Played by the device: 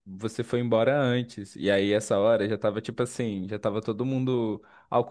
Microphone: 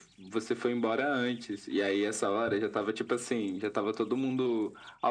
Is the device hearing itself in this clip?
Yes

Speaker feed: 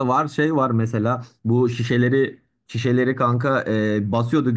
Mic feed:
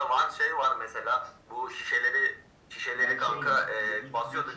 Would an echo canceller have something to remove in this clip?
Yes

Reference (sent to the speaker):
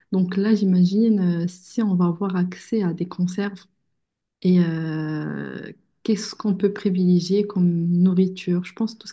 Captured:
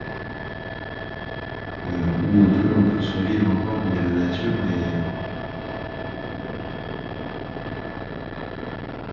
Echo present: No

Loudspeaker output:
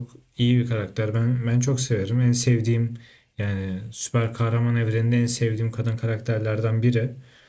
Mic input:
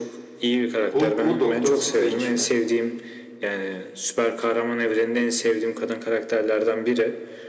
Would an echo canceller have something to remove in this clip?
Yes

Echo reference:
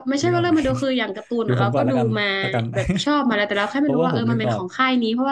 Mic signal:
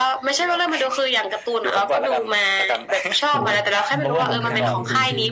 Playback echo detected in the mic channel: Yes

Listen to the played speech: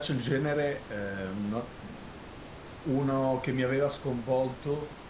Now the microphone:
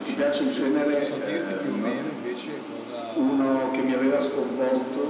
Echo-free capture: No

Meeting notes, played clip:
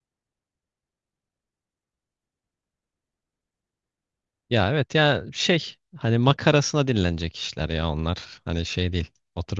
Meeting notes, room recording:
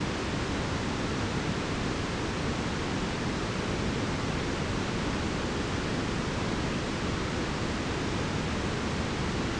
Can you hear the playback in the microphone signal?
No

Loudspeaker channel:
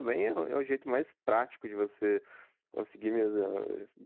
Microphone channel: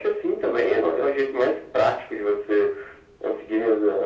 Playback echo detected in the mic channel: Yes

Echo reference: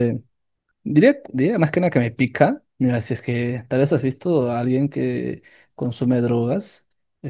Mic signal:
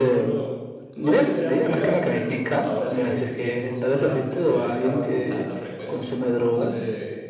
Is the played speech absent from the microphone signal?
No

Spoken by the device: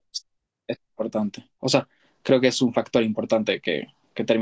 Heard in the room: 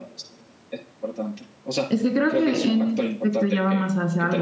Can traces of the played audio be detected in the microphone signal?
Yes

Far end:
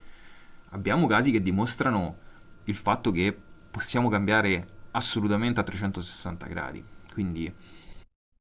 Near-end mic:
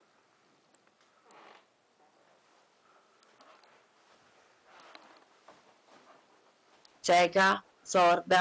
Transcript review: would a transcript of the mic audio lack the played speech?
Yes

